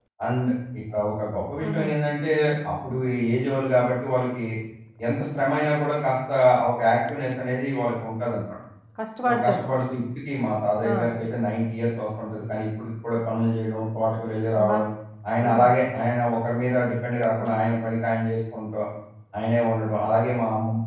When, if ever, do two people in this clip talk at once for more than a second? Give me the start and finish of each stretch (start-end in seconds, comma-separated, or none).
none